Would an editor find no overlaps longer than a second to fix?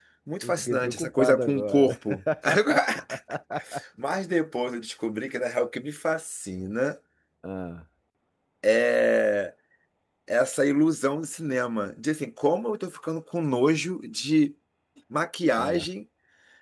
No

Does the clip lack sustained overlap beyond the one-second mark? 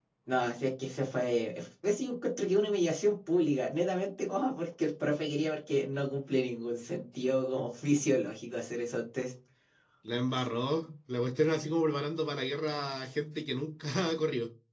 Yes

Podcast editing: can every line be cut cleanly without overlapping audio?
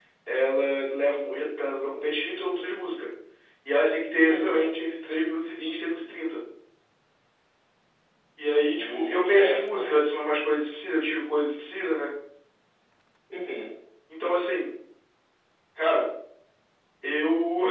No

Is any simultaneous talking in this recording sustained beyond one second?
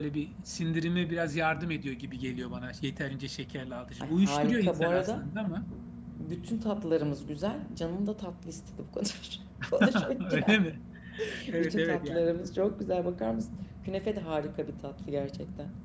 Yes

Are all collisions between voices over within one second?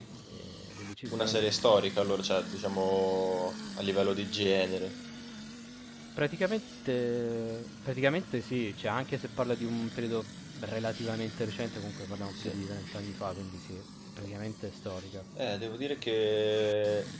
Yes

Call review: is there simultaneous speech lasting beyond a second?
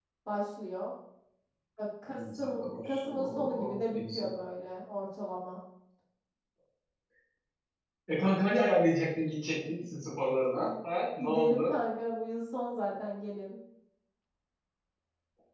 Yes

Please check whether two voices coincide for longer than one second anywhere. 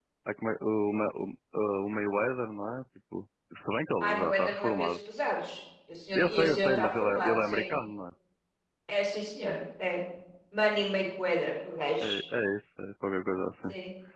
Yes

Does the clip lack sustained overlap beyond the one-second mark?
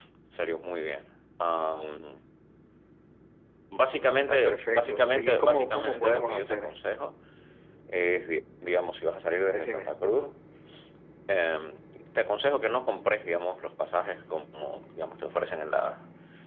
No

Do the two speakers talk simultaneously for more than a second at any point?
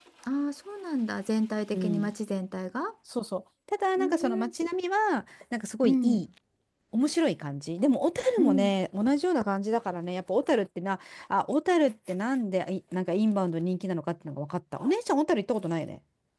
No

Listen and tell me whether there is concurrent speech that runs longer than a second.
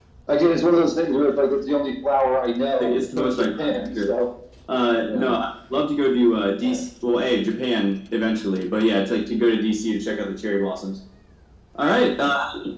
Yes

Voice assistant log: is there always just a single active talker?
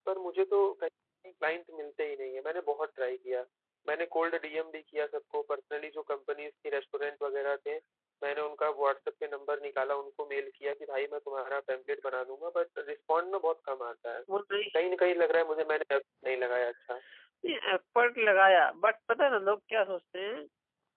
Yes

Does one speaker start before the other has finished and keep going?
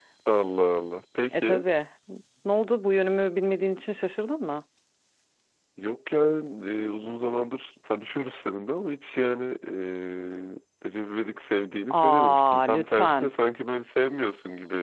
Yes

